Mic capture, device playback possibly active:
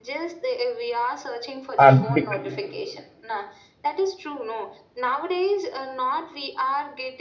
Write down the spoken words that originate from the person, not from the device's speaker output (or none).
um, because,